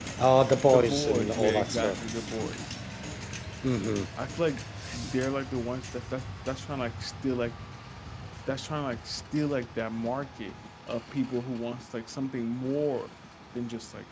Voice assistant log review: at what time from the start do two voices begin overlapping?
1 s

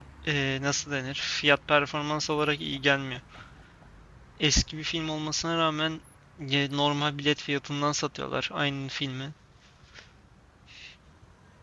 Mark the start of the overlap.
none

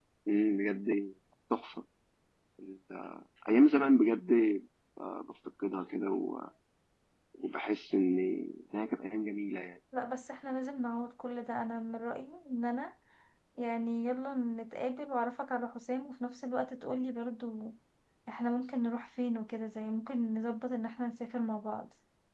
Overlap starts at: none

